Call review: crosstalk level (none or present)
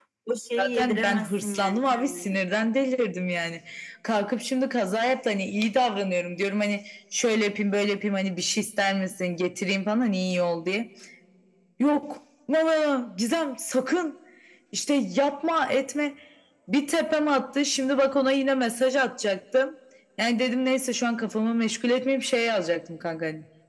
present